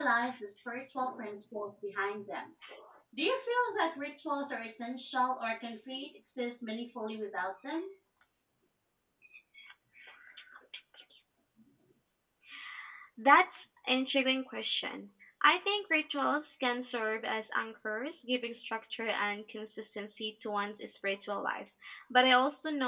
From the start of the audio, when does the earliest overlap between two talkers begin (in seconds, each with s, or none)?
none